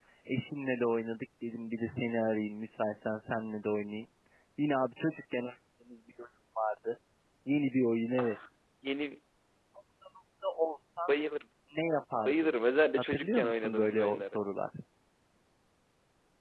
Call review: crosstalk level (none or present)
present